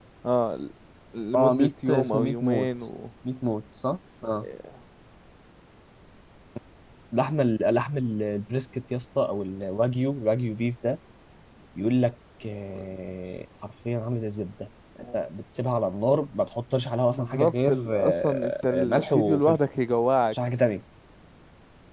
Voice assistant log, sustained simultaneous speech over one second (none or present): present